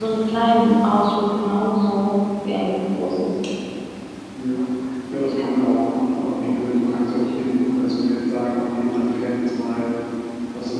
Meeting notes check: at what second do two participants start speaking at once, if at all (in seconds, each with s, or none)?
none